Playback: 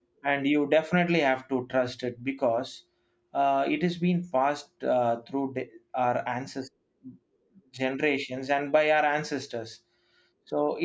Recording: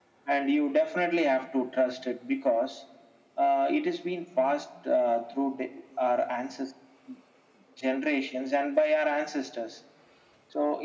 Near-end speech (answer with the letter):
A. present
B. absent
B